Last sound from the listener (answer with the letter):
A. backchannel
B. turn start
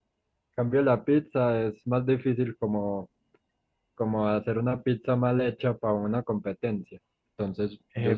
B